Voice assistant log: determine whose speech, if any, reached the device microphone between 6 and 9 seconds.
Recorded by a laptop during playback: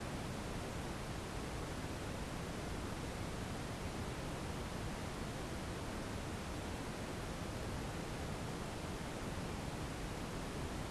neither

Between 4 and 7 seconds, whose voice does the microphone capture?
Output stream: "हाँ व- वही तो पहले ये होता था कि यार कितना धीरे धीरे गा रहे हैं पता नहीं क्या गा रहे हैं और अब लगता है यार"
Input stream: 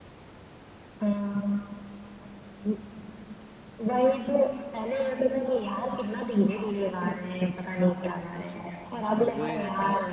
echo only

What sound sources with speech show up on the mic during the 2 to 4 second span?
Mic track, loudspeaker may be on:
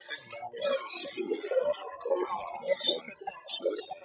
echo only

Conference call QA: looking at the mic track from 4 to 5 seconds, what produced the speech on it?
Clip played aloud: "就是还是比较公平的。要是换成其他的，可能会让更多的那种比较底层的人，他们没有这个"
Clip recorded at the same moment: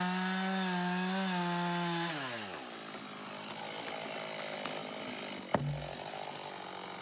neither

